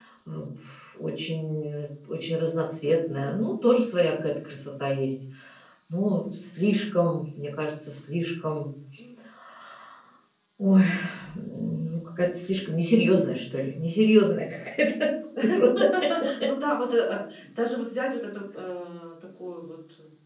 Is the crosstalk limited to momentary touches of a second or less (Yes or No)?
Yes